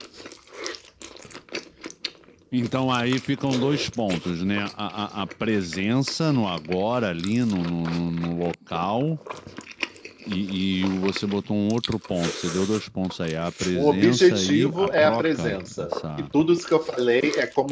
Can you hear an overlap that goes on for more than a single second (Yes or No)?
Yes